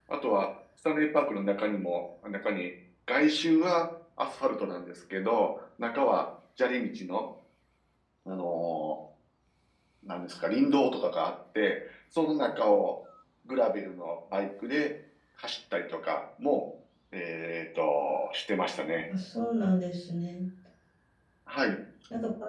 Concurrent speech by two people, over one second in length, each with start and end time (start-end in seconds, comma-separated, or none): none